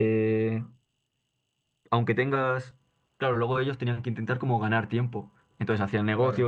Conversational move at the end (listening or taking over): listening